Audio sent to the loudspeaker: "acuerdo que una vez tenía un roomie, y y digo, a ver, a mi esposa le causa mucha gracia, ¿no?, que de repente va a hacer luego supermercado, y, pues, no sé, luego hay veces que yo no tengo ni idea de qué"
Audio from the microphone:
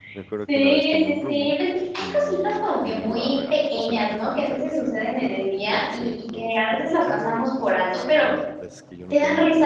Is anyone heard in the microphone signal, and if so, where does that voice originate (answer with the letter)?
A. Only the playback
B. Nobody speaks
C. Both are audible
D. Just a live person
C